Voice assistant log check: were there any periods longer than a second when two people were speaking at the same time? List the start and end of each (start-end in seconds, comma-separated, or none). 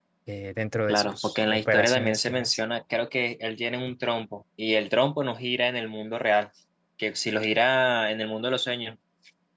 0.9-2.6